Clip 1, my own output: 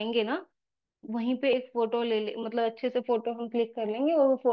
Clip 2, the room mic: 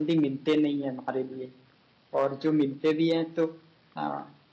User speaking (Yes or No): Yes